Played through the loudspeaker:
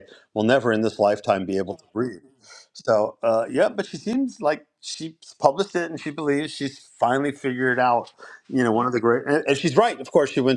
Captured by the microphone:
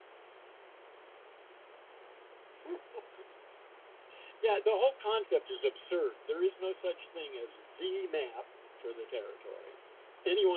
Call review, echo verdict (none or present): none